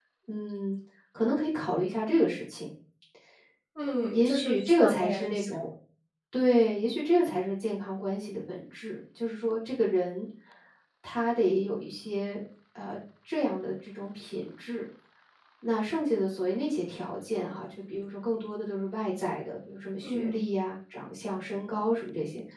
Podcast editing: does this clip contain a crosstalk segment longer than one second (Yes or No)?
Yes